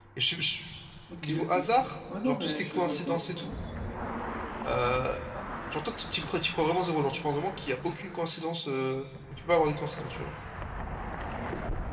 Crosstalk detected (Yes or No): Yes